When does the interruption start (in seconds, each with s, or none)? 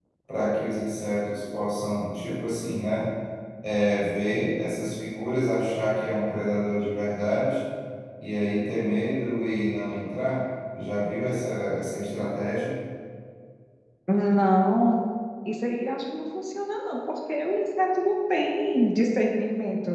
none